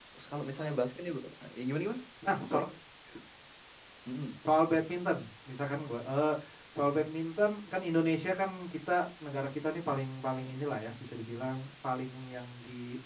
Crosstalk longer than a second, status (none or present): none